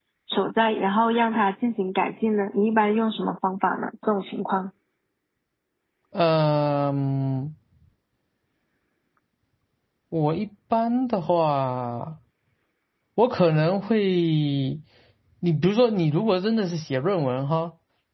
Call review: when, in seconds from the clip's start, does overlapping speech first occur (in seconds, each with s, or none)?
none